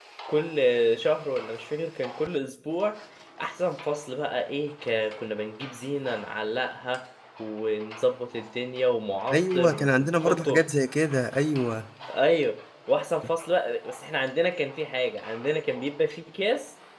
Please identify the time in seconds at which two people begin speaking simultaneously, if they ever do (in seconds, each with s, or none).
9.3 s